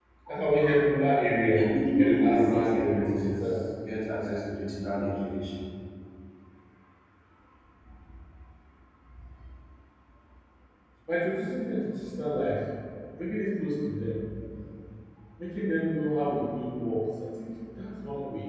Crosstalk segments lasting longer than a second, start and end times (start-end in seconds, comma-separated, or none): 1.5-3.4